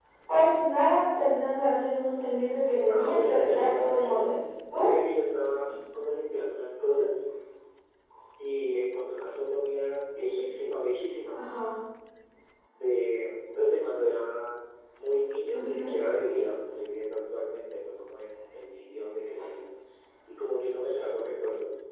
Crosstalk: present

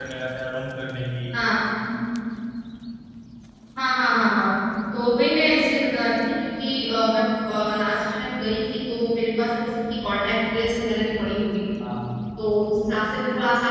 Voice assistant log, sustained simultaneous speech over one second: none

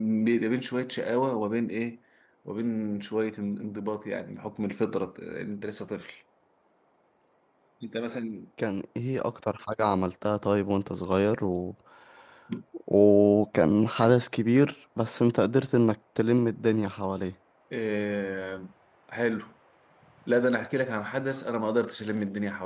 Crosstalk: none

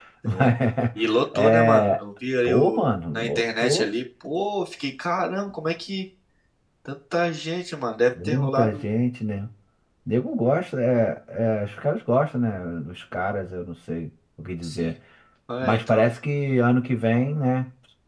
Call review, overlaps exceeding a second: present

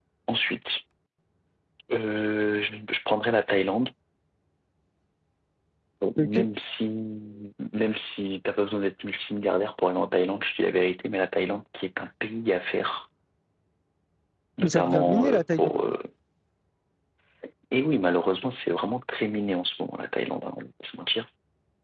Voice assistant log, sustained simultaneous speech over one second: present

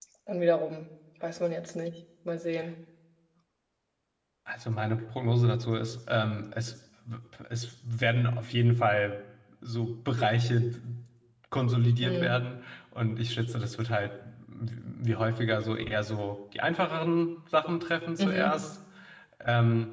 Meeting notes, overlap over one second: none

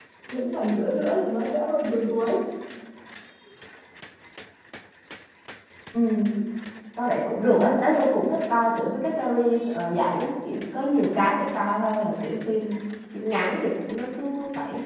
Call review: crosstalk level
none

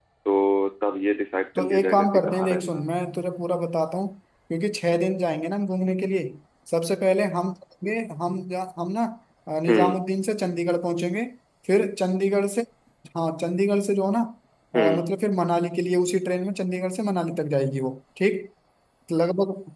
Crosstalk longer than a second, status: present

